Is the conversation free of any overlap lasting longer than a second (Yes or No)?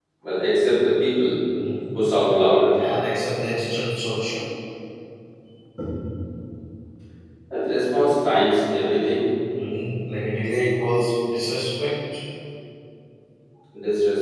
Yes